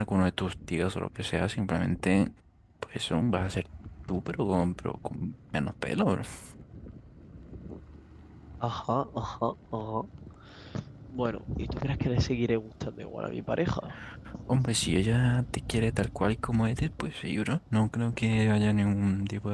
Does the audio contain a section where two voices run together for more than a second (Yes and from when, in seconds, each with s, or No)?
No